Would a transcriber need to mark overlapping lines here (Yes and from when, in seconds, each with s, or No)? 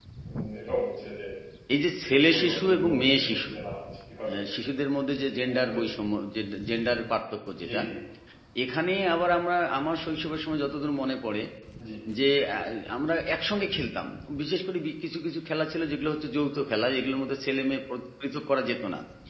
Yes, from 2.1 s